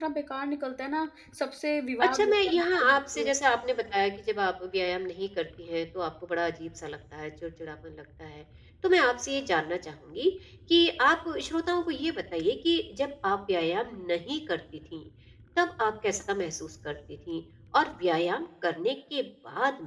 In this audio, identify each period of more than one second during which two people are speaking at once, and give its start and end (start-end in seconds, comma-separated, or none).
2.0-3.3